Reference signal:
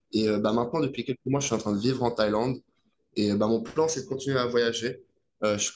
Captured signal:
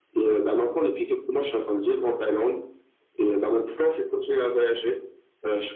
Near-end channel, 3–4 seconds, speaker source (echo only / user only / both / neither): echo only